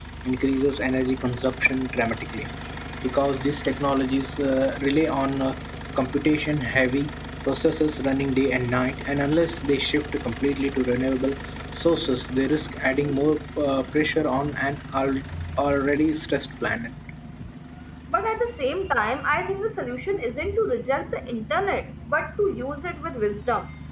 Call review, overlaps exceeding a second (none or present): none